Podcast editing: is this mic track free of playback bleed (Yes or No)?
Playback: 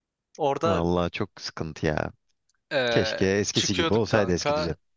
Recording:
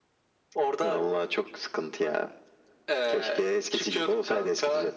No